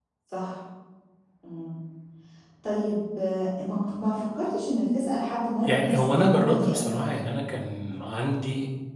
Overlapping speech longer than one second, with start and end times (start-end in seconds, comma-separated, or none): 5.6-7.0